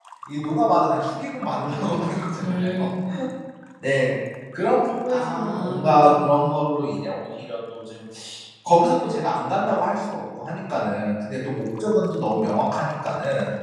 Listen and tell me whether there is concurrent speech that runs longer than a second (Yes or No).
Yes